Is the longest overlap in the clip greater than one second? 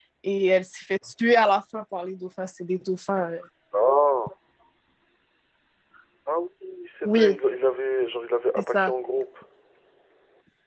No

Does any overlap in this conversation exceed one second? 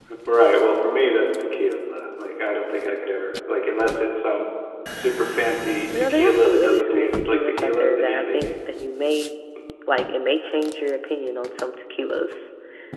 Yes, from 5.9 s

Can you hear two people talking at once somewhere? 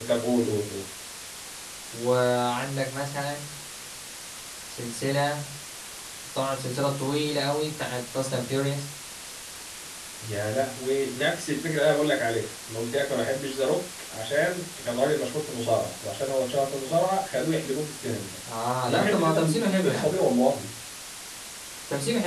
Yes, from 18.9 s

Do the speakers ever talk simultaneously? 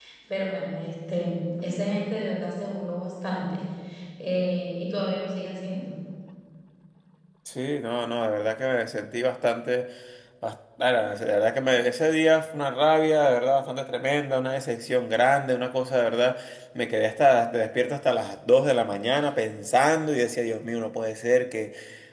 No

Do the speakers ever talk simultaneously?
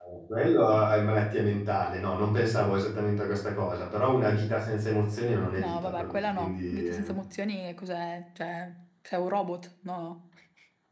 Yes, from 5.6 s

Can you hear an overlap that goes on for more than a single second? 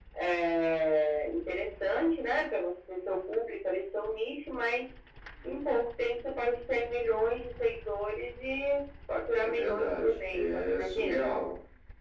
Yes, from 9.4 s

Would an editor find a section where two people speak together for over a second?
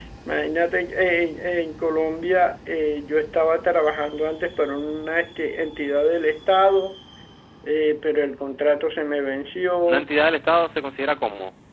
No

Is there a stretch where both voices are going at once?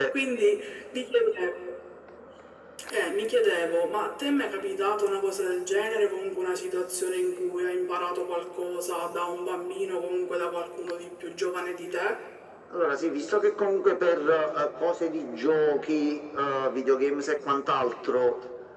No

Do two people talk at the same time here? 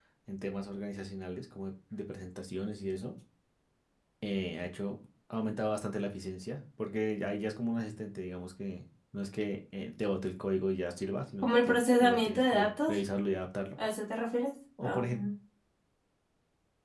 Yes, from 11.4 s

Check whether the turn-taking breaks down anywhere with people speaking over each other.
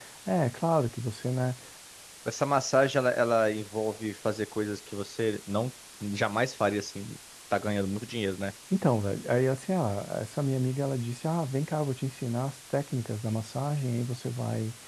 No

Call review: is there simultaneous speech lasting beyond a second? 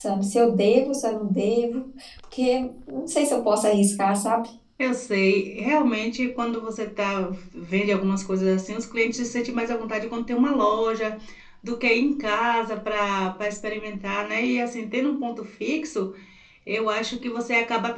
No

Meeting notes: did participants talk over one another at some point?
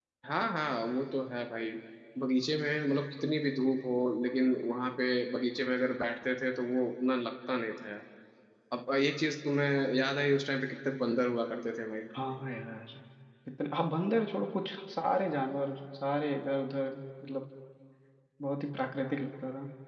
No

